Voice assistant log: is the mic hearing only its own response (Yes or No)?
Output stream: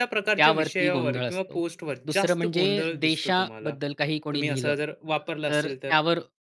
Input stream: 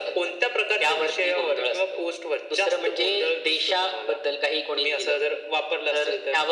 Yes